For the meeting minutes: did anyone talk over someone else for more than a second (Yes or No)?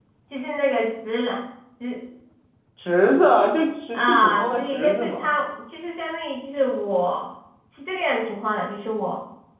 Yes